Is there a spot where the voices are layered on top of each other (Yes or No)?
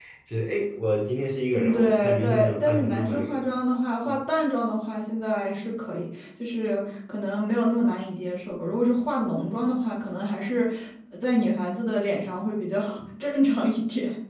Yes